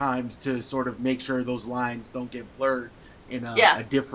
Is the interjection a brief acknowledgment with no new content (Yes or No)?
Yes